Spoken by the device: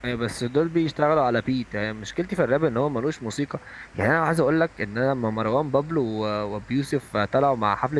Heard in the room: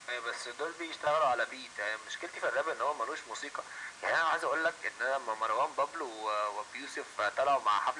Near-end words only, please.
none

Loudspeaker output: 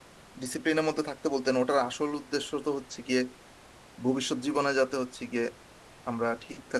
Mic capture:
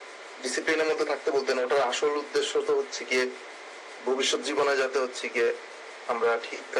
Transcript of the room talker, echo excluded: none

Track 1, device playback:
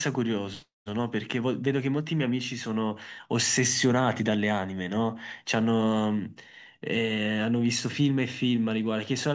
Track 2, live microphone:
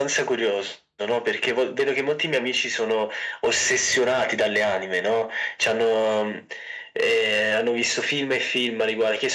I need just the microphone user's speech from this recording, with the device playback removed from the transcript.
none

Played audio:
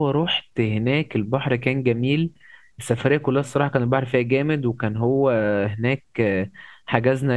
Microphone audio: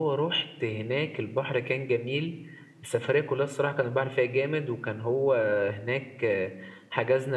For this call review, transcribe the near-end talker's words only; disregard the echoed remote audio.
none

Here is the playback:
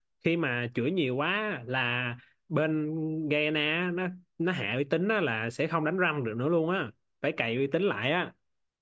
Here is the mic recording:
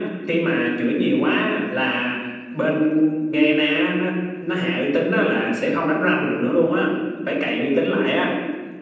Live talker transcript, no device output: none

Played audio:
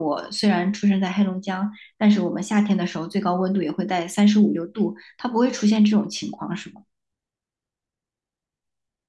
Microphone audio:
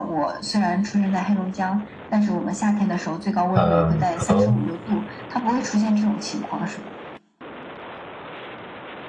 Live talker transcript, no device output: 嗯，可能。

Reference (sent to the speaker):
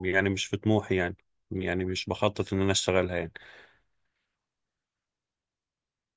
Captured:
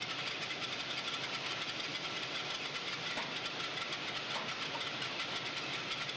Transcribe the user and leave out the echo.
none

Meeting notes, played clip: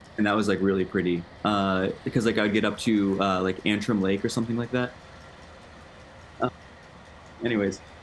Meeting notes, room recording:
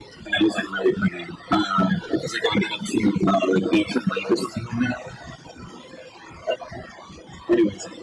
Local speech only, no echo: none

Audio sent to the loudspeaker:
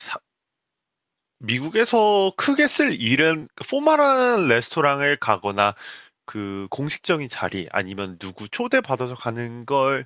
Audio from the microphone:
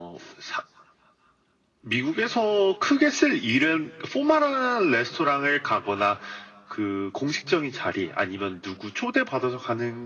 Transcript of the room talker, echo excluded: none

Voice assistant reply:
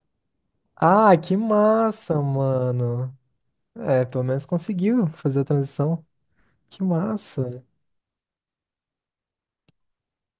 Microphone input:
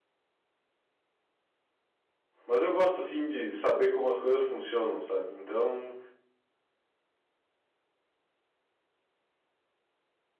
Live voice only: Mas eu gosto, assim, de saber como as coisas funcionam, sabe? Então,

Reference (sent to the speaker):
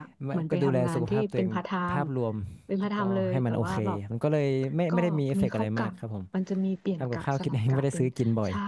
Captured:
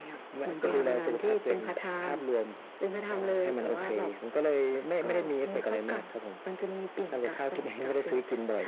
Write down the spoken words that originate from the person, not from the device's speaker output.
ค่ะ

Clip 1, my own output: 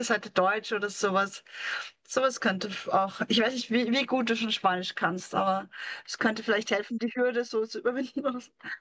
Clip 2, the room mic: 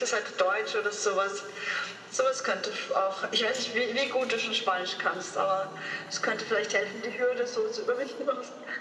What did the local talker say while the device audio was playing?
none

